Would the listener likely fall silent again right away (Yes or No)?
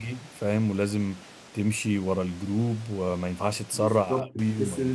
No